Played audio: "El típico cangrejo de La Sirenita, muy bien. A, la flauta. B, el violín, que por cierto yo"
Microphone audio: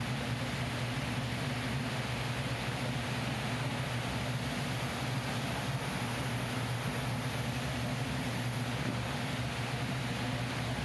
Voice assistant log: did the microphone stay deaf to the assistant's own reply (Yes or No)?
Yes